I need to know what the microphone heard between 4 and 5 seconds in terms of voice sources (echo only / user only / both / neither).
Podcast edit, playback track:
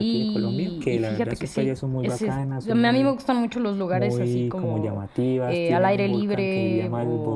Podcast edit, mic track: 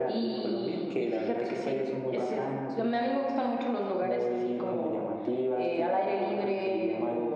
echo only